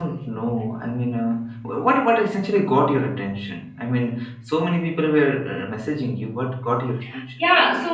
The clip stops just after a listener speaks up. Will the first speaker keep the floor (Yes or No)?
No